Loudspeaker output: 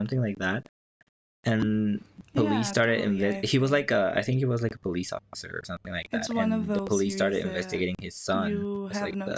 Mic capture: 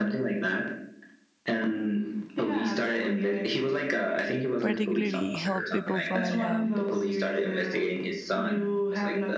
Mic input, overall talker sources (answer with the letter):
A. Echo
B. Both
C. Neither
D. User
B